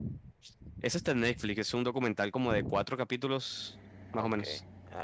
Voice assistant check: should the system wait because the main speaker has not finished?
No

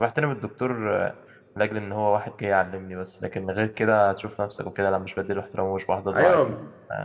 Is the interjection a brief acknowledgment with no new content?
No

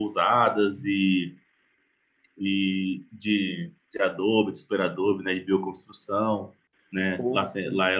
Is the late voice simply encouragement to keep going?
Yes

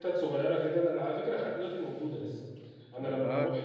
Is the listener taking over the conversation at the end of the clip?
No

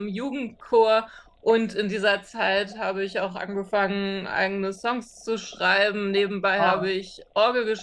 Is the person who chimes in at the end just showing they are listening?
Yes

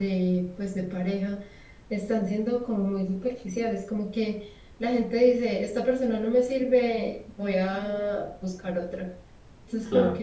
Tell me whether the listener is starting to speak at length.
No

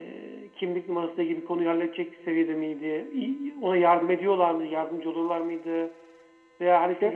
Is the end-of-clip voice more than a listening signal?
No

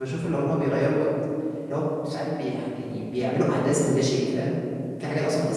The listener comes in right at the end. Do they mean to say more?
No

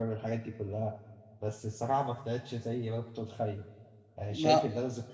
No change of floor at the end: Yes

